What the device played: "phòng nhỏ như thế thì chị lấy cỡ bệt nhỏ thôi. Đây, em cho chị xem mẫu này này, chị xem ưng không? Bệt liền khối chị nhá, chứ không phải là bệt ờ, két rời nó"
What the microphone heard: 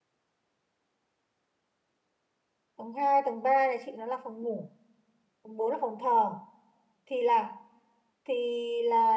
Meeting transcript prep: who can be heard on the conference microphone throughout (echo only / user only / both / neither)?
user only